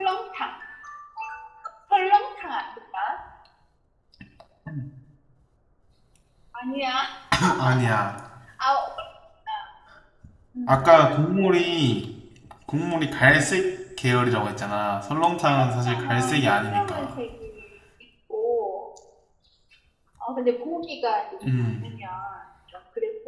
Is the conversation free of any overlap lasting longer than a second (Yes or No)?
No